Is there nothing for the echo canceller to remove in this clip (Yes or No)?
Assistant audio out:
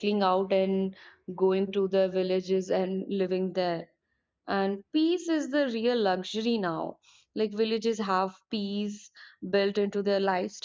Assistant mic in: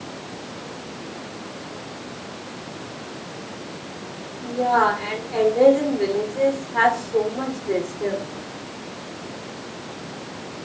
Yes